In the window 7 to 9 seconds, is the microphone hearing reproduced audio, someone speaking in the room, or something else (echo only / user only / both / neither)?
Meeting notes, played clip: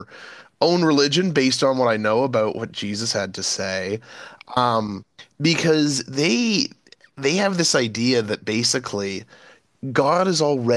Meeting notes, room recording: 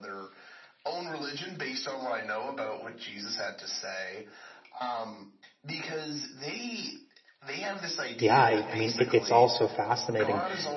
both